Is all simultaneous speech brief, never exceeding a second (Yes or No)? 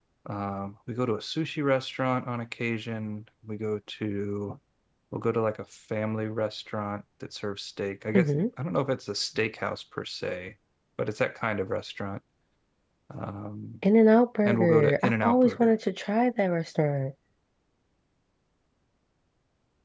No